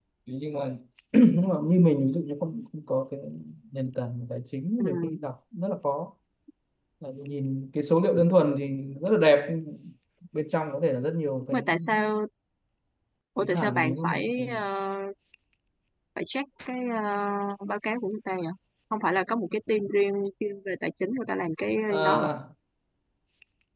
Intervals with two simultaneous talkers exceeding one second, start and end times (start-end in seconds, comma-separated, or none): 13.4-14.6